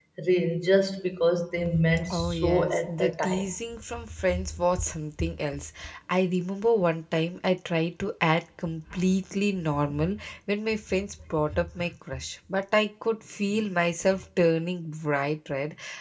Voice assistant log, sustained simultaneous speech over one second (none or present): present